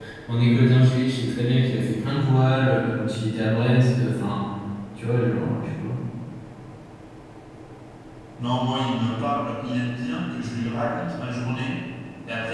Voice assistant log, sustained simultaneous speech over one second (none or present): none